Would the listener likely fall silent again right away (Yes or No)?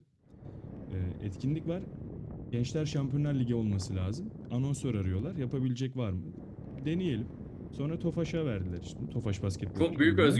No